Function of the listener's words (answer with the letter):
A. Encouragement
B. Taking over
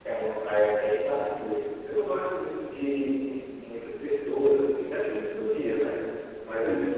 A